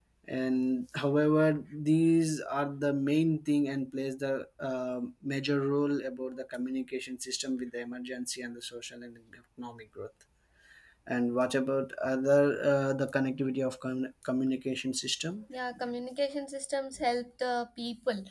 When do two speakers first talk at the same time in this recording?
none

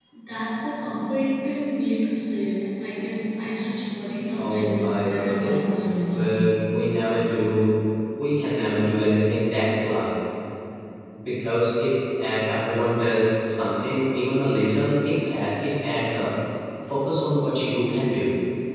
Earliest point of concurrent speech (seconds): 4.4 s

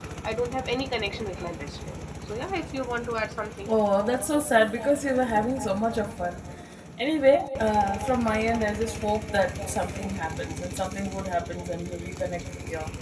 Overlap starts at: none

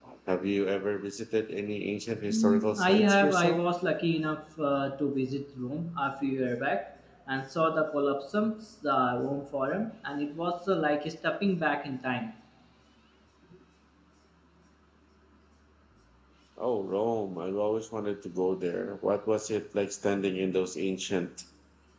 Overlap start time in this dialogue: 2.3 s

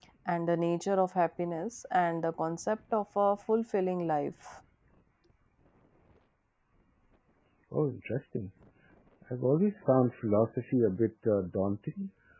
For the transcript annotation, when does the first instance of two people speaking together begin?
none

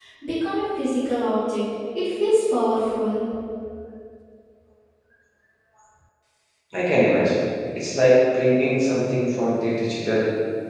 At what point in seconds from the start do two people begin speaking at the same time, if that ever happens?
none

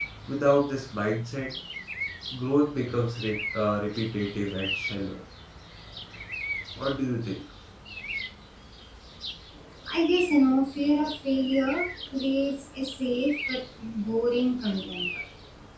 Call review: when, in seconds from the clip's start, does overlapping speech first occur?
none

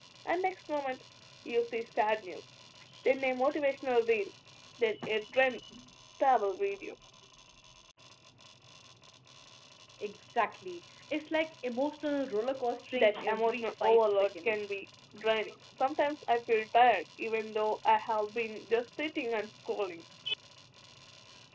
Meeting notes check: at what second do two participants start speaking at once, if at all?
12.9 s

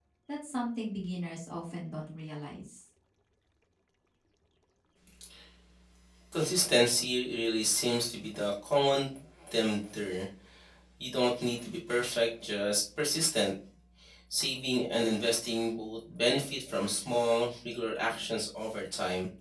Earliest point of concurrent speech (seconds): none

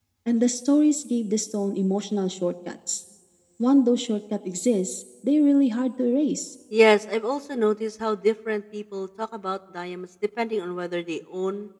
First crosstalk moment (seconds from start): none

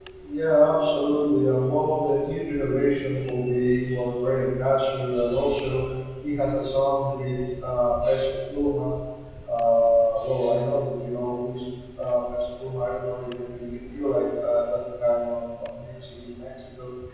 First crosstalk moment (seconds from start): none

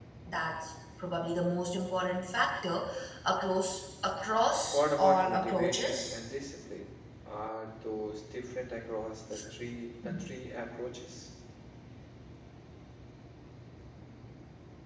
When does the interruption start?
4.7 s

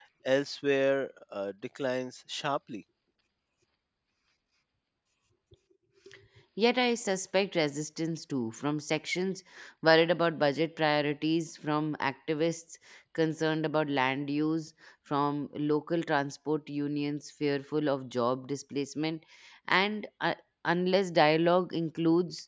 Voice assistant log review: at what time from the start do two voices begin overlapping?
none

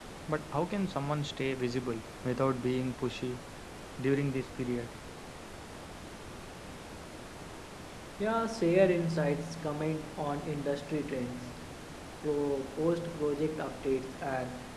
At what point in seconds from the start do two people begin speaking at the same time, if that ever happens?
none

